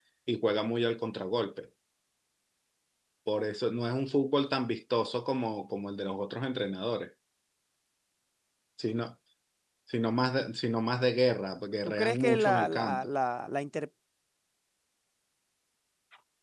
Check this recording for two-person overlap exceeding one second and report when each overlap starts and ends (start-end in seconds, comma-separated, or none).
11.8-13.1